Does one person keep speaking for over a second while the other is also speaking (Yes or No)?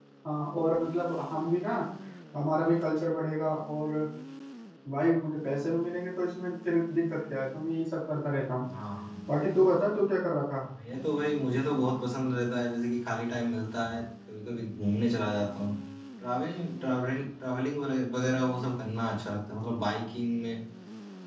No